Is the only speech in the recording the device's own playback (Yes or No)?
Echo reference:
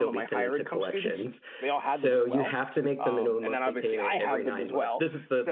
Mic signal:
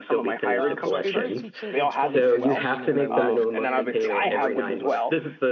No